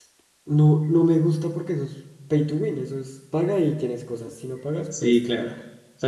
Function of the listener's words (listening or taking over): taking over